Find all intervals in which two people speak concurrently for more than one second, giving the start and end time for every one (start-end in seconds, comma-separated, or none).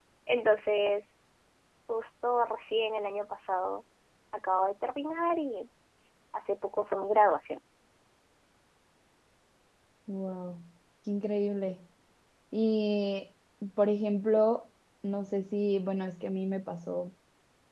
none